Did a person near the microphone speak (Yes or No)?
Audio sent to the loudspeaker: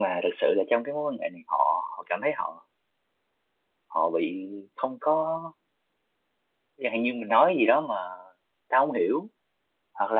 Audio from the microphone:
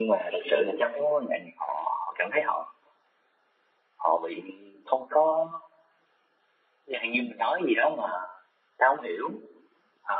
No